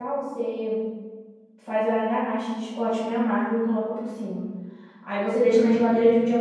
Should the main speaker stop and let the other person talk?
No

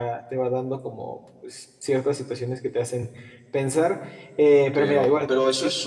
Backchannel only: No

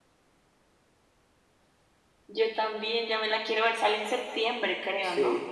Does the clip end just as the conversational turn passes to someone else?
Yes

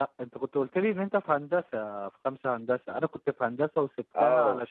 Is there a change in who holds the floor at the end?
No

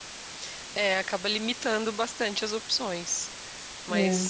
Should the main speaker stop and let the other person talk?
No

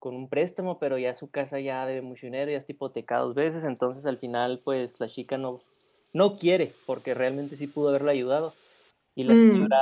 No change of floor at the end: Yes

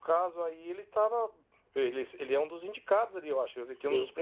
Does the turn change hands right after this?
No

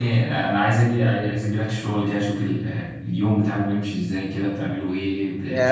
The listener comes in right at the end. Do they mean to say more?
Yes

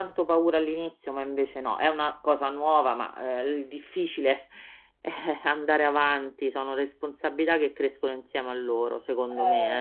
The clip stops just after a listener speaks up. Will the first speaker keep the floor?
No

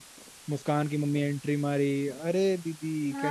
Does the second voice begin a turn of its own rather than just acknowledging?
Yes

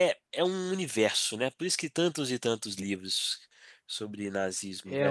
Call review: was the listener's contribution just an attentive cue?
No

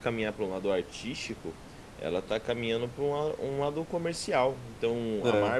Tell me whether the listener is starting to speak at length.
No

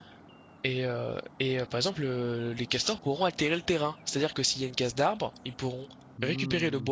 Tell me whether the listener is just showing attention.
No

